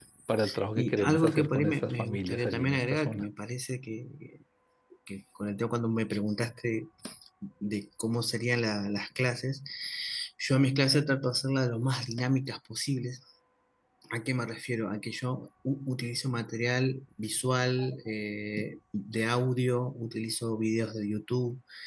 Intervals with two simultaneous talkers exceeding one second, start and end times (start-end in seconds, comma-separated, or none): 0.8-3.3